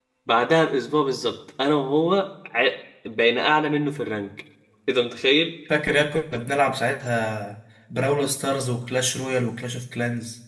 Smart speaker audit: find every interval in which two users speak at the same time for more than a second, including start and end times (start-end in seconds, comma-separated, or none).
none